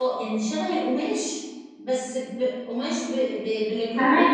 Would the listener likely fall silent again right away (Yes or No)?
Yes